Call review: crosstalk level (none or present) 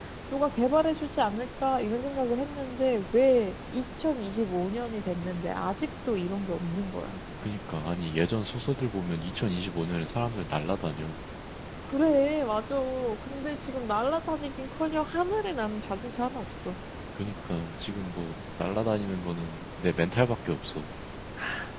none